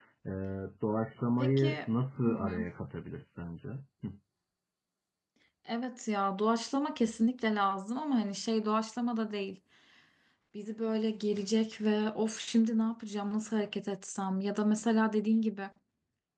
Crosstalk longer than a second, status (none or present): none